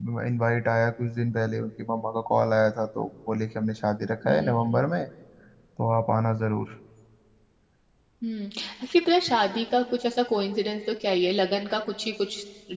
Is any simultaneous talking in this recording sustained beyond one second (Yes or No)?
No